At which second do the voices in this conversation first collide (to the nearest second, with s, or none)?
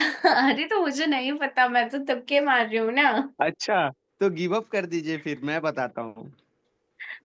none